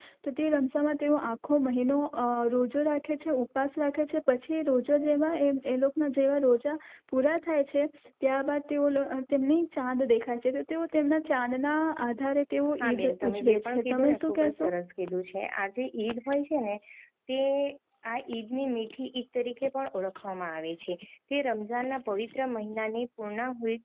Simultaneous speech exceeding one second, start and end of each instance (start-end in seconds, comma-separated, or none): 12.8-14.7